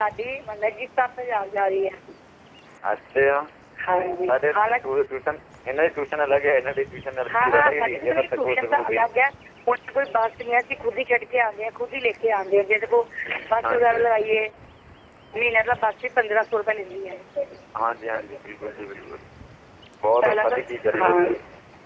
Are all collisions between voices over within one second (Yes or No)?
No